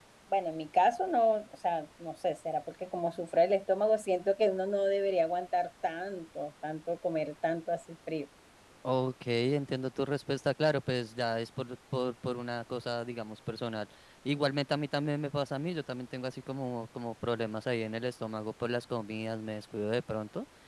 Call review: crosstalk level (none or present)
none